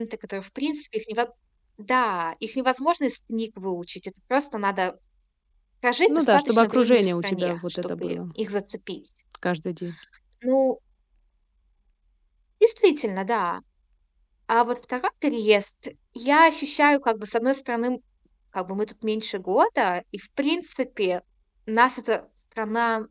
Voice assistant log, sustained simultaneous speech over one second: present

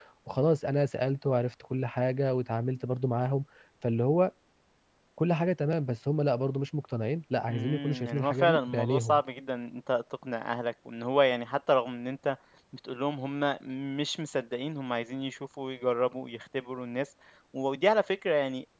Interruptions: present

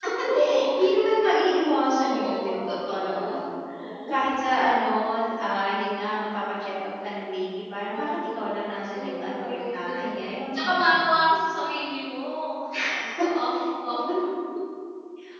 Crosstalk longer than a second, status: present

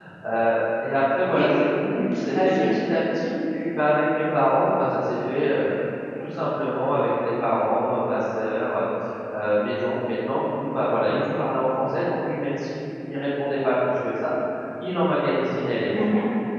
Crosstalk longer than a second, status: none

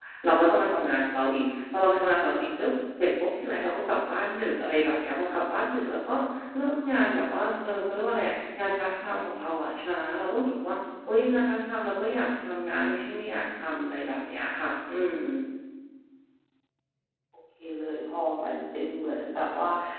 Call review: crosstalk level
none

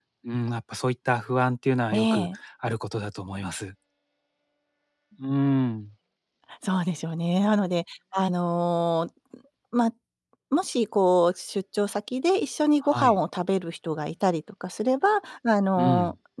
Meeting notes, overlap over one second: none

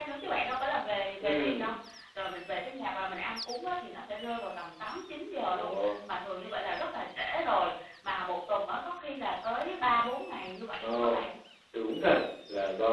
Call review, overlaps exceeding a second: none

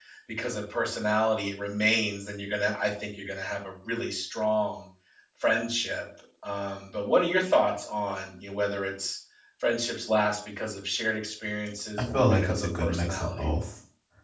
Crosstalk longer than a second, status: present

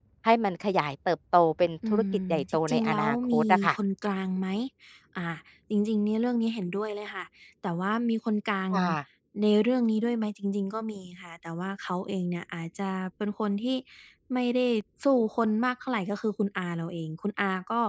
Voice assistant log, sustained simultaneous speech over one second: present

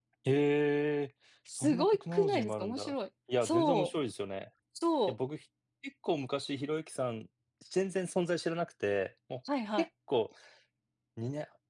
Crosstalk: present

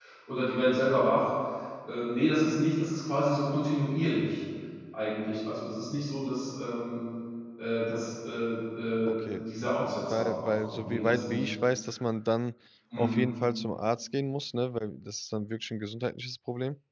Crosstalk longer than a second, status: present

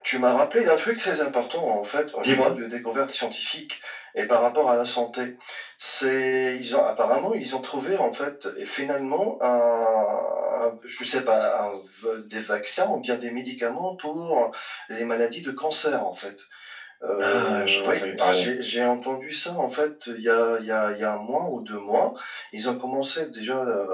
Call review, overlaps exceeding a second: present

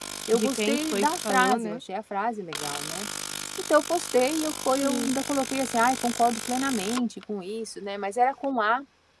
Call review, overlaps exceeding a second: present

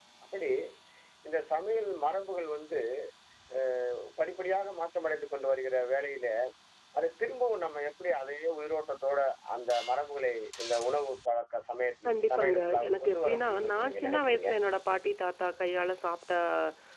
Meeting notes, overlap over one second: present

